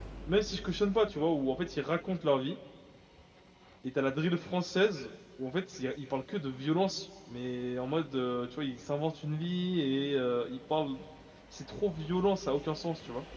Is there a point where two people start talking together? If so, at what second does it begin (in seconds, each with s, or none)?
none